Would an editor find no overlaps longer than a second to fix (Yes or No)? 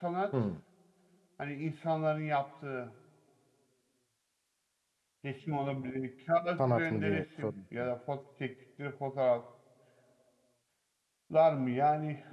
No